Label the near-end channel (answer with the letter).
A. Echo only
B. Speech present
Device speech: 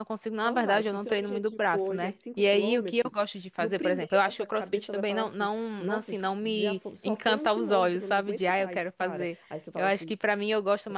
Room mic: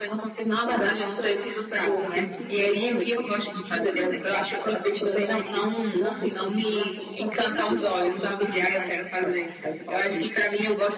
B